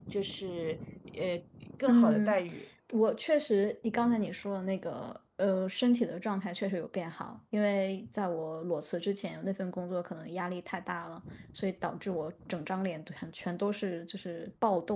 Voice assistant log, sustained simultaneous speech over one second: none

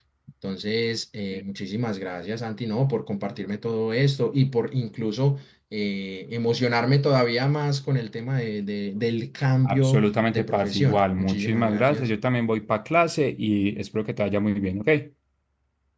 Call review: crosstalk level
present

